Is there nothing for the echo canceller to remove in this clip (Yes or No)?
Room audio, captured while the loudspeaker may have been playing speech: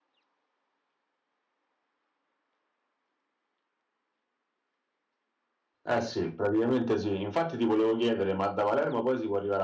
Yes